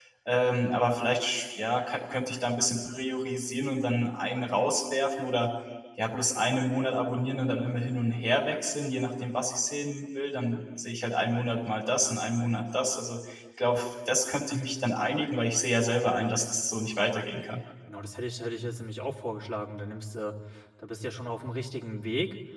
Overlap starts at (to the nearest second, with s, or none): none